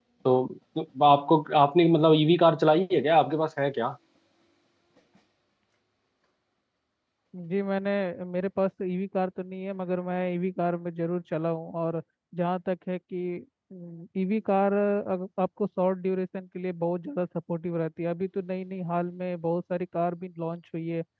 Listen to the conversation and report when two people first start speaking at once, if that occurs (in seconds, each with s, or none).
none